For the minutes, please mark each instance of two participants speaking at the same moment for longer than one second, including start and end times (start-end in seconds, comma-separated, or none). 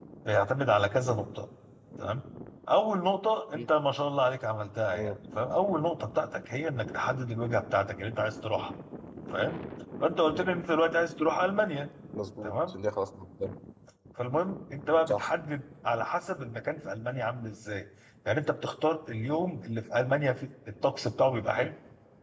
none